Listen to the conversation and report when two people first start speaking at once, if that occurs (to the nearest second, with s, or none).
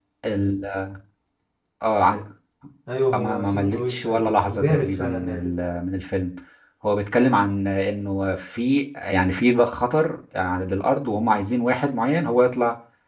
3 s